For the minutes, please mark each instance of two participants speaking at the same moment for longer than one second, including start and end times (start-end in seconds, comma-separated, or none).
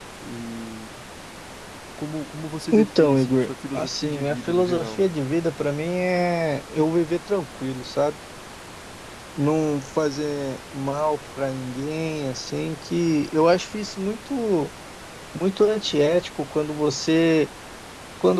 2.7-5.0